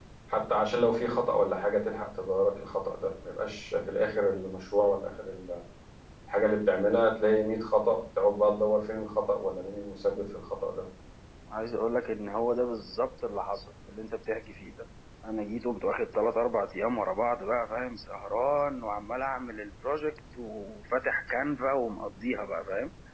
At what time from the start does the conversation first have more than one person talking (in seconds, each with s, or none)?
none